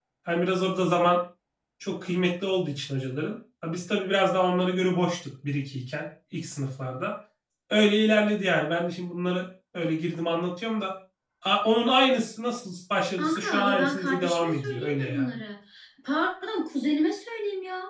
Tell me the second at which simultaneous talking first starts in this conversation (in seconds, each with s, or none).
13.2 s